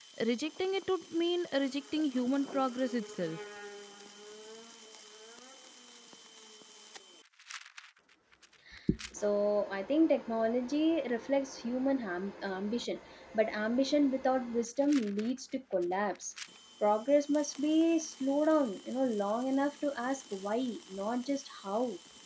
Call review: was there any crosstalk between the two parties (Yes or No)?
No